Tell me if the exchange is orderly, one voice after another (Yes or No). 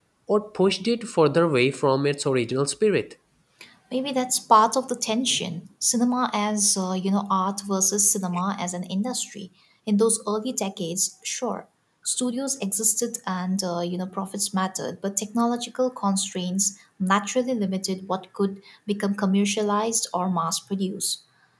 Yes